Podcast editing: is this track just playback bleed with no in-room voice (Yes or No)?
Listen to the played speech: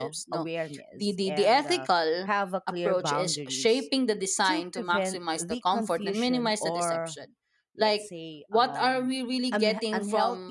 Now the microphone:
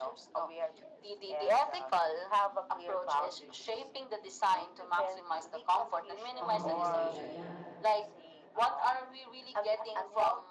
No